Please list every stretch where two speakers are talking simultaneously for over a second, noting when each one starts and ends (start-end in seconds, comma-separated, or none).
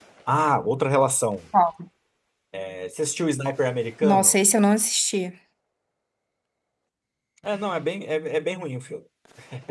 none